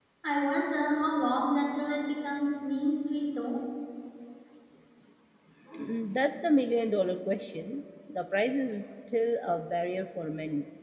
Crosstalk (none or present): none